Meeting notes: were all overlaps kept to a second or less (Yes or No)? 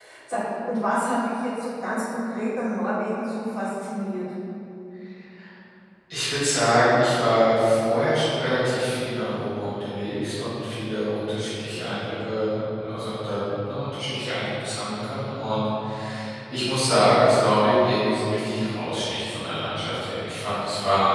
Yes